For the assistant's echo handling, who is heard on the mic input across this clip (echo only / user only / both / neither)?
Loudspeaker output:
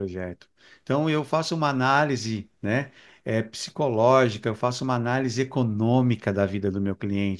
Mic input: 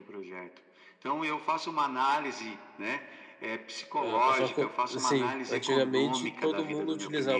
both